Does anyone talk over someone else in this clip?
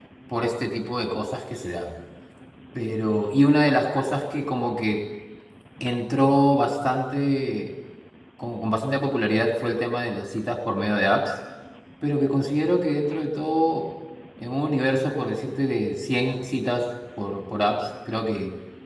No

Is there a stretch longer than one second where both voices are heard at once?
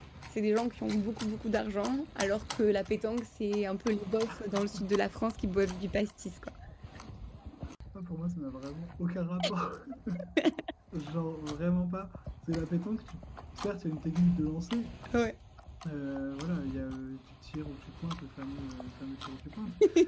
No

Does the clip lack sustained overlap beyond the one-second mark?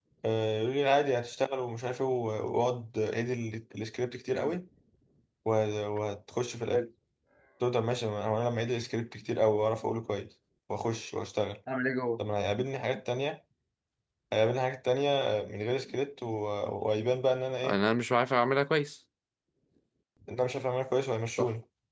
Yes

